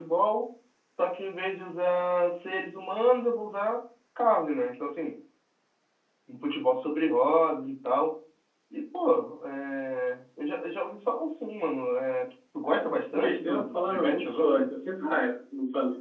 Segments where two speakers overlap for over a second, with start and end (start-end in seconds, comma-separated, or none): 12.7-14.7